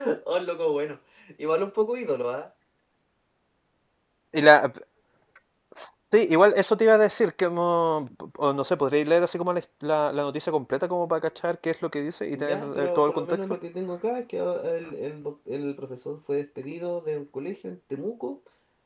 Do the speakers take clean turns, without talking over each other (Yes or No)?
No